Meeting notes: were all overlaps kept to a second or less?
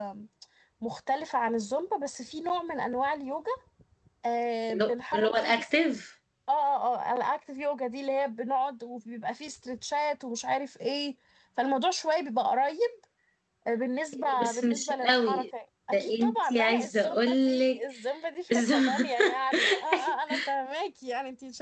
No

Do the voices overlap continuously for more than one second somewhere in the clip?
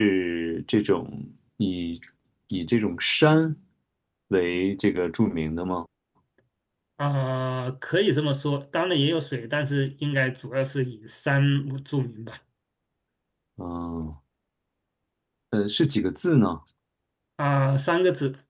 No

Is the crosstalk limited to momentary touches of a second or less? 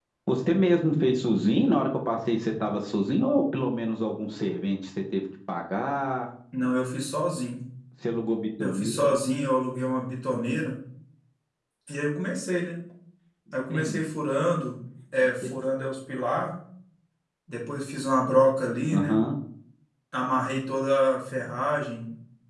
Yes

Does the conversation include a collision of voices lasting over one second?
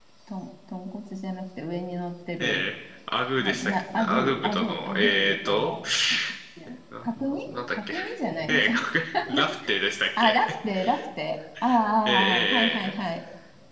Yes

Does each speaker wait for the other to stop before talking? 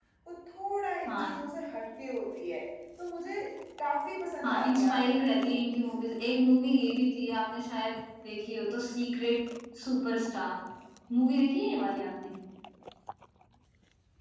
No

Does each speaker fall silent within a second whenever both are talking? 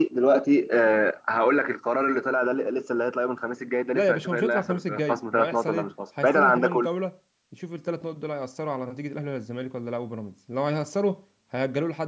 No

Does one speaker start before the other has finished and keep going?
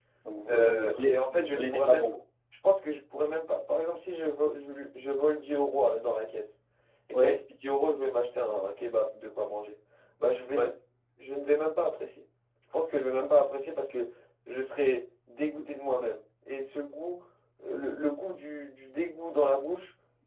Yes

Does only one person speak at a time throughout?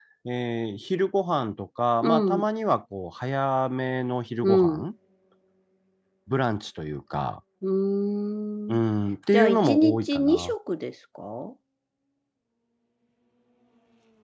No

